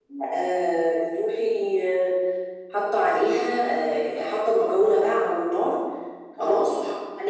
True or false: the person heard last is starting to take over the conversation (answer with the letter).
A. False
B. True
A